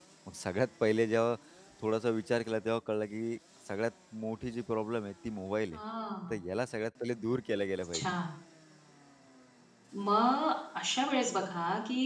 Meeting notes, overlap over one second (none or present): none